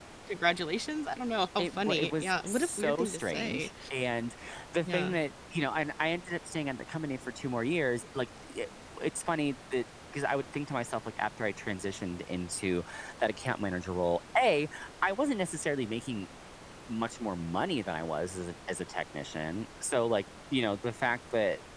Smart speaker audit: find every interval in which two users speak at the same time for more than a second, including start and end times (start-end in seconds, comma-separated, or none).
1.6-3.7